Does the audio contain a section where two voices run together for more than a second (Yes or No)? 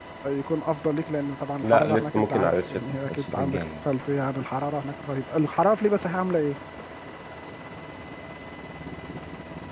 Yes